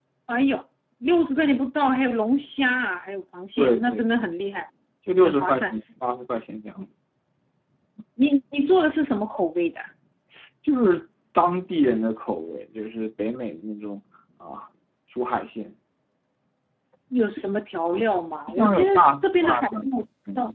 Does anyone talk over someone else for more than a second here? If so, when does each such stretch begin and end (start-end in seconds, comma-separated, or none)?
18.5-19.8